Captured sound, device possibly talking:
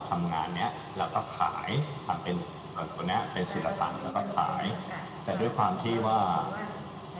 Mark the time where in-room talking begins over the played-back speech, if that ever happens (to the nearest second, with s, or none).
3 s